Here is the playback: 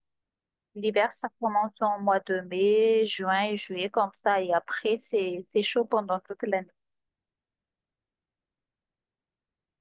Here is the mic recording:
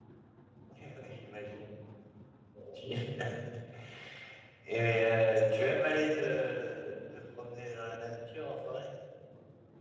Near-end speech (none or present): present